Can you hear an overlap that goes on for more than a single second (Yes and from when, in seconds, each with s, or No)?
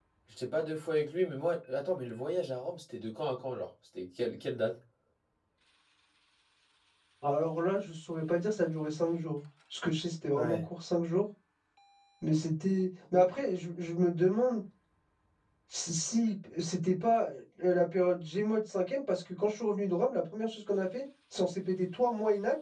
No